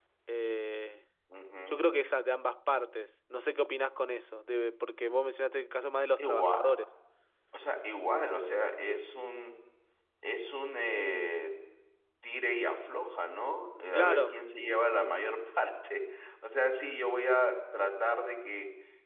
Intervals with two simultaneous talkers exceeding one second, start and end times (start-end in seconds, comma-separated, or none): none